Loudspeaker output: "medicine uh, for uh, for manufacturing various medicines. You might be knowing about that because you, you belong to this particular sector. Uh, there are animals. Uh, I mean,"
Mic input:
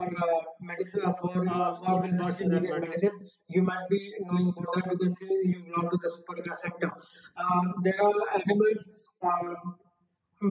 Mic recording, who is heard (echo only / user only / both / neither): both